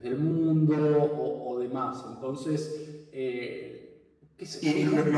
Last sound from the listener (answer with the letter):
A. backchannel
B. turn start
B